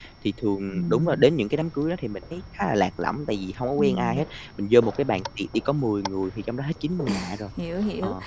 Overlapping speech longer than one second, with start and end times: none

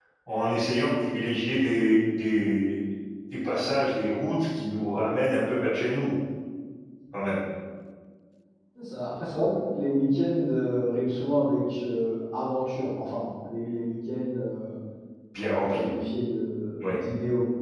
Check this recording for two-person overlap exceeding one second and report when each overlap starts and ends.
none

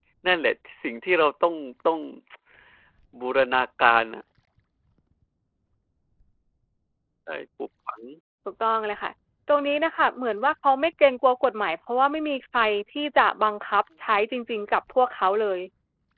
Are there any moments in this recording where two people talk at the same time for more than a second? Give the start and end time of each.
none

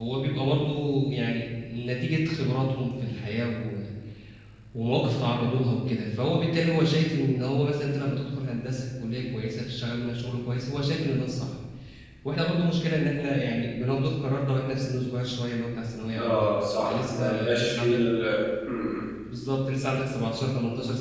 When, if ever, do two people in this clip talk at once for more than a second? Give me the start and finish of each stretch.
16.2-18.0

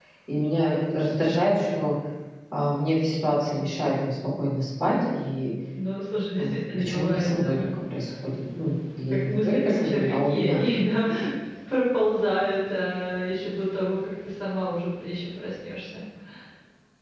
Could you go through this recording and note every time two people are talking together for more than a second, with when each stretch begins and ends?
6.4-7.6, 9.1-10.6

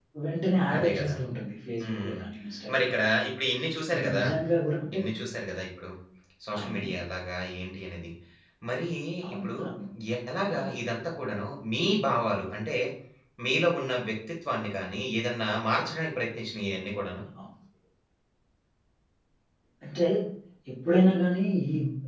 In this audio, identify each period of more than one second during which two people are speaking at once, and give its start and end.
none

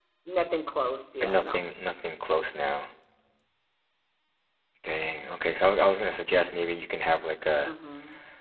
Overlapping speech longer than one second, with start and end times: none

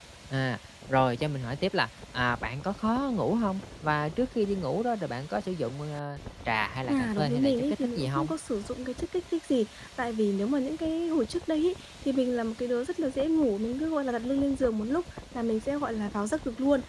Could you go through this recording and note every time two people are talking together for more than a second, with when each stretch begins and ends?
6.9-8.3

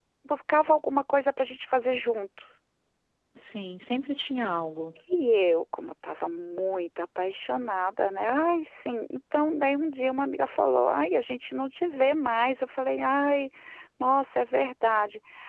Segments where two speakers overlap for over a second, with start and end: none

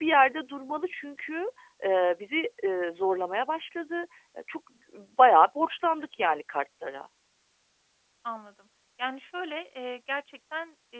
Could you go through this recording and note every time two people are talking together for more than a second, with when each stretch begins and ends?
none

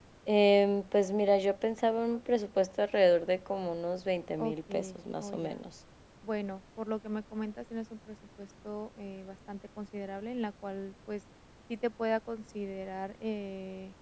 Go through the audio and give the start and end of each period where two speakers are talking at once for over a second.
4.4-5.6

